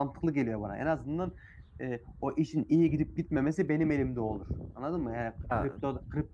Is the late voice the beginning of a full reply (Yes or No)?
No